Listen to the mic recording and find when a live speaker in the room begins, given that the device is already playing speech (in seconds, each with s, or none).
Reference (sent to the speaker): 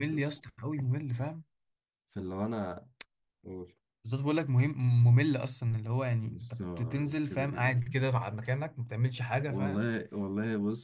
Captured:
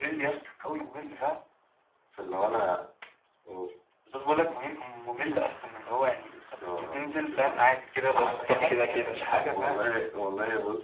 8.2 s